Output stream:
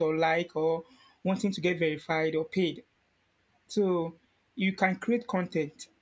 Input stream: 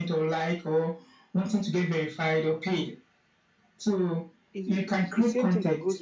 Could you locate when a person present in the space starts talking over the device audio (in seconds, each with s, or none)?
4.5 s